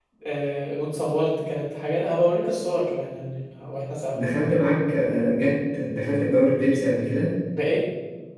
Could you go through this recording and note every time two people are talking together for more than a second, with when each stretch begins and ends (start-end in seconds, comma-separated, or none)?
none